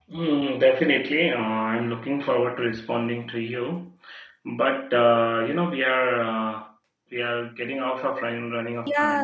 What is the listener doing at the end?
taking over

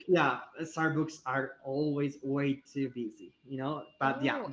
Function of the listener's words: taking over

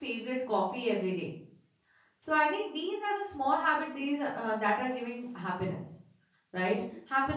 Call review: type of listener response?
listening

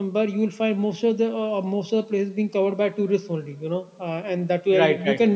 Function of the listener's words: listening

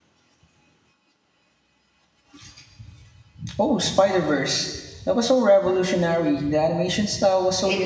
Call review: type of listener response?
taking over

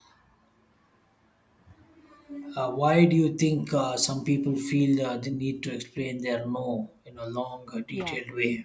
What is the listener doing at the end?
taking over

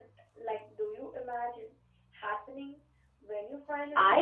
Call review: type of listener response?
taking over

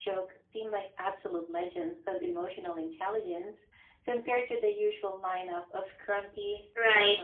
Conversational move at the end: taking over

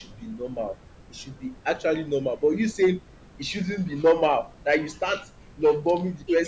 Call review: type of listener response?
taking over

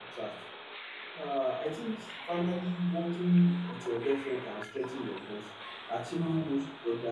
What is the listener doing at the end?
listening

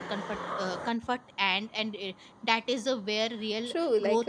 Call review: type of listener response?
taking over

